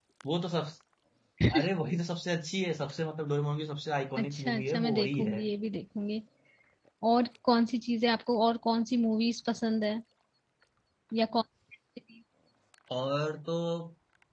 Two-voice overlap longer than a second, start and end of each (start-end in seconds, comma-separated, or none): 4.2-5.4